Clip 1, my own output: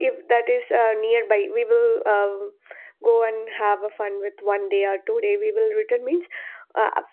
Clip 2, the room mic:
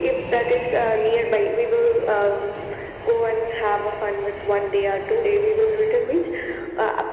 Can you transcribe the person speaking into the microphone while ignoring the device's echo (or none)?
none